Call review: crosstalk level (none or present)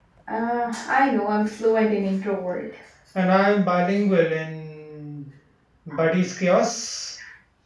none